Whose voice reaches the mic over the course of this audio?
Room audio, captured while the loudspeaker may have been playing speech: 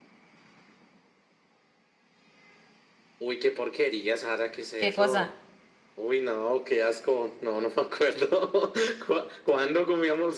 both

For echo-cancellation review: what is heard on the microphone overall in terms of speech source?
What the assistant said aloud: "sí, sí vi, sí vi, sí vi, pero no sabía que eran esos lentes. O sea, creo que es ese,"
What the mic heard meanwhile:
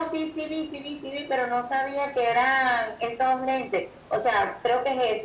echo only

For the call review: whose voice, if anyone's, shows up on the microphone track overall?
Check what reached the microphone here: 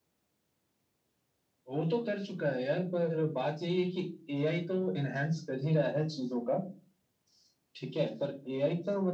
echo only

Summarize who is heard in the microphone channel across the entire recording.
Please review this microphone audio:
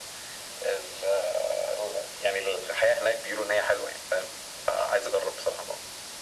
echo only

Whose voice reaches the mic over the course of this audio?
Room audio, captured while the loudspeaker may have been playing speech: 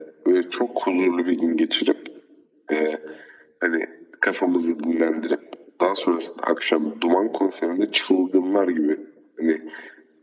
echo only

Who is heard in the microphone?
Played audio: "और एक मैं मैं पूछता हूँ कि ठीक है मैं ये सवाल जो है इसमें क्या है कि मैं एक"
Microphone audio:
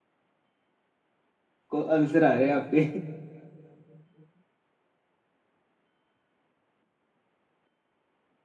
user only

